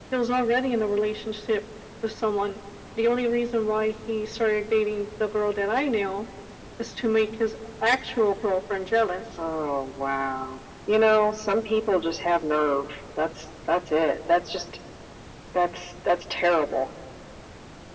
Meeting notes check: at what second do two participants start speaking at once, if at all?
none

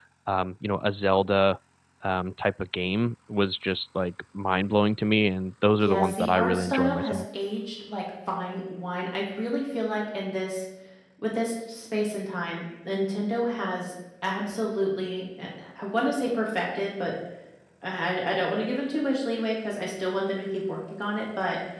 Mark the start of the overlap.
5.8 s

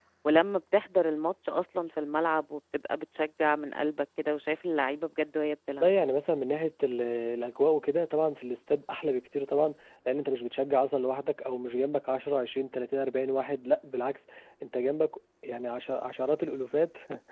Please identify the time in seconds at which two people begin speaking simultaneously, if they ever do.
none

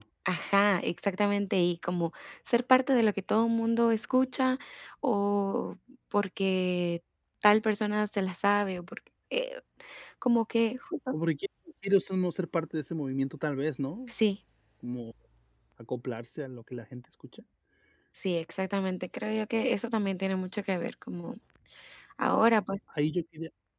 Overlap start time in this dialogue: none

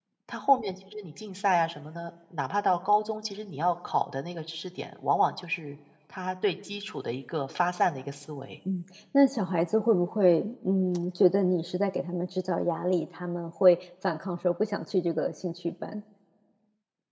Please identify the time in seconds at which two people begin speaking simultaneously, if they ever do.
none

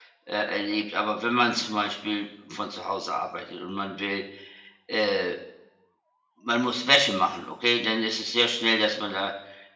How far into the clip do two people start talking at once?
none

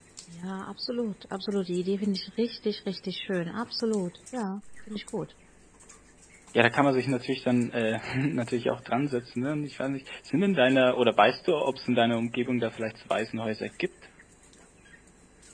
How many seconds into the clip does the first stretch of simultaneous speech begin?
none

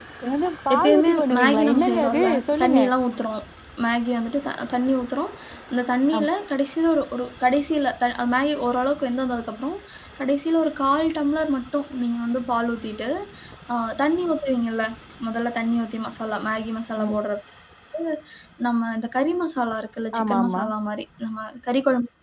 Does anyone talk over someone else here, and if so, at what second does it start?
0.7 s

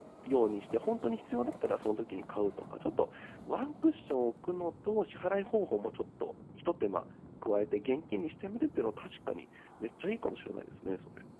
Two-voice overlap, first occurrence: none

